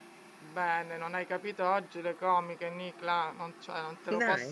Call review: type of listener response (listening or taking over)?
listening